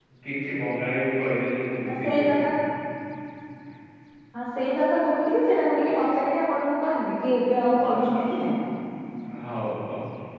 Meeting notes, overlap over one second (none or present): none